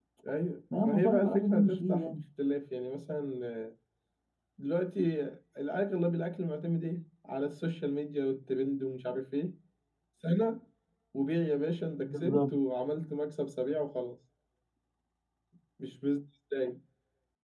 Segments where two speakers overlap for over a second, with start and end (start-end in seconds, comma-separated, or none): 0.8-2.1